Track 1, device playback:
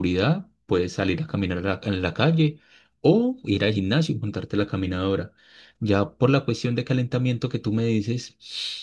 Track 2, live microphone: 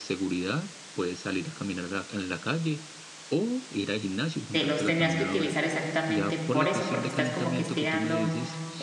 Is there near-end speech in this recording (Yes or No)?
Yes